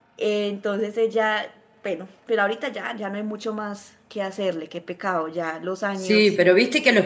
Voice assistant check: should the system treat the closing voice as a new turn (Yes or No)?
Yes